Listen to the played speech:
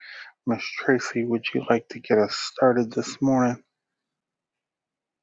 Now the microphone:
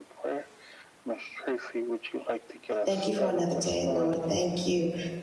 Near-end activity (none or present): present